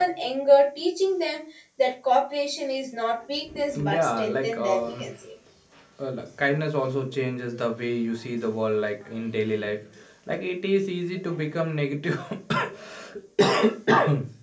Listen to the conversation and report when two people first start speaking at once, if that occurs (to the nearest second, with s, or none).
4 s